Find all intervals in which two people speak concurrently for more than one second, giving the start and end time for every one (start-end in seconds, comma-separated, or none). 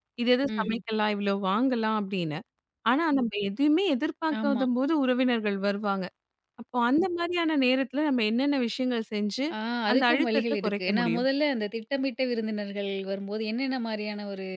9.9-11.2